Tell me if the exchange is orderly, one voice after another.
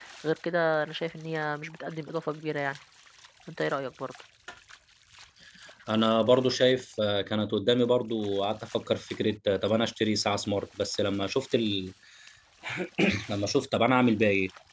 Yes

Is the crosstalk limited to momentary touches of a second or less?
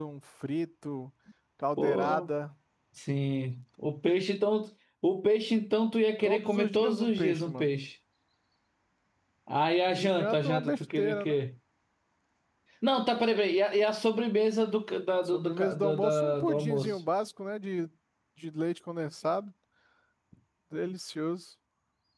No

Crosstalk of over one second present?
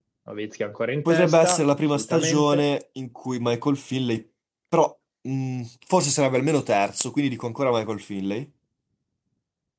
Yes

